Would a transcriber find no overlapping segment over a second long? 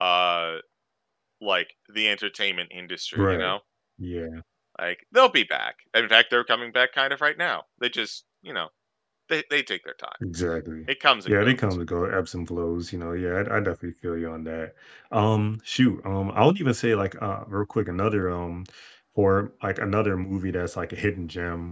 Yes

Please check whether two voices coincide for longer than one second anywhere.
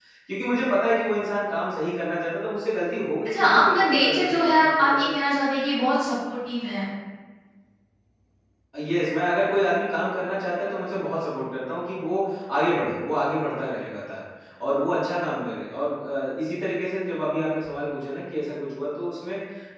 Yes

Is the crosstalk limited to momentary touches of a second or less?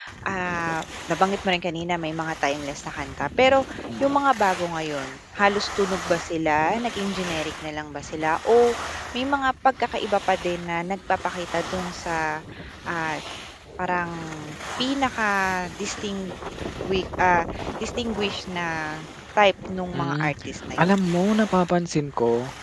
Yes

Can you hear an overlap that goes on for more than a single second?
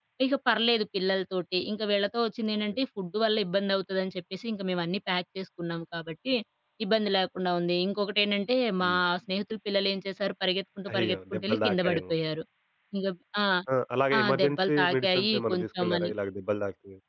Yes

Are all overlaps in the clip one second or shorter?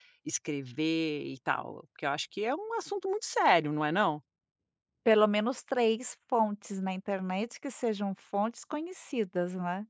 Yes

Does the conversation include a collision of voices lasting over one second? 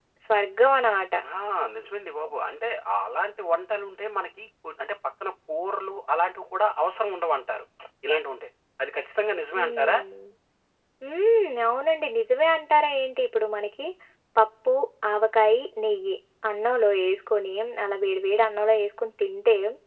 No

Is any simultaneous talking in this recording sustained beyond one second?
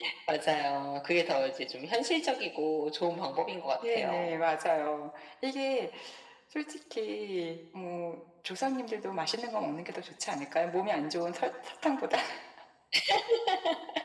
No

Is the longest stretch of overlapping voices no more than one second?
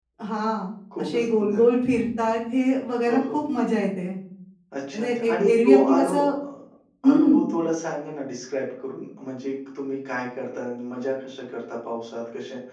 No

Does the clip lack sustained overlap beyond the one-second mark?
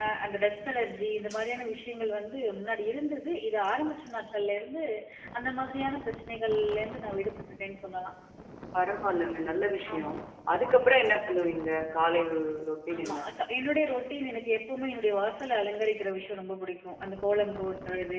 Yes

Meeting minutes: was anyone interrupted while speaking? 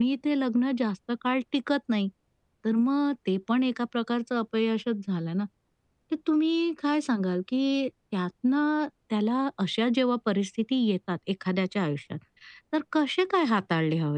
No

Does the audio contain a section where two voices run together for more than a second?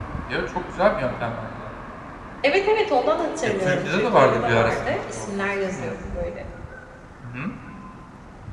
Yes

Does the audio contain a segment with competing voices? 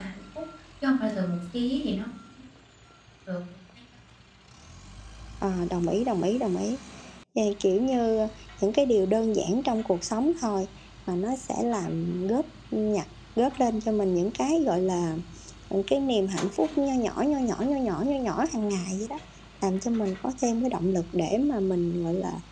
No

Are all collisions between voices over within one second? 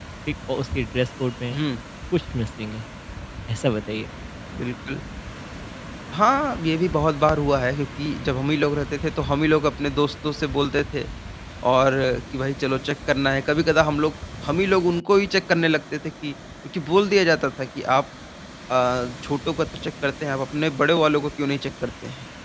Yes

